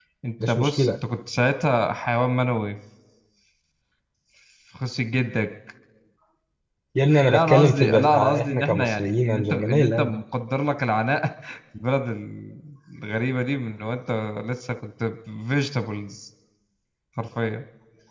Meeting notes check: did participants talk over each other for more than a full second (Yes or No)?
Yes